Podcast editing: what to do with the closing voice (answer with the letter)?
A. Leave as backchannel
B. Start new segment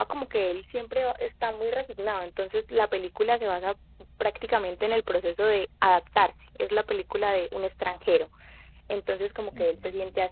A